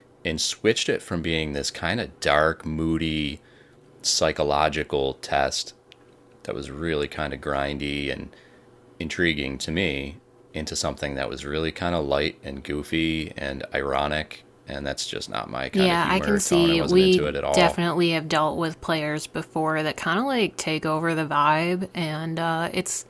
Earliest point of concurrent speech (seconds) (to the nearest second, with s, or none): 16 s